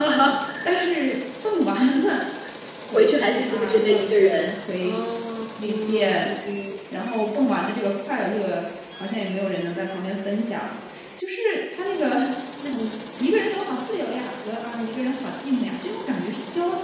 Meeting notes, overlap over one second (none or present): present